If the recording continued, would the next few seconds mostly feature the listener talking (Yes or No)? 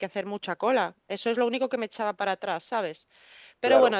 Yes